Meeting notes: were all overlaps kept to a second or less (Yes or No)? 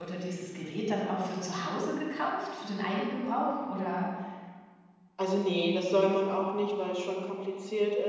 Yes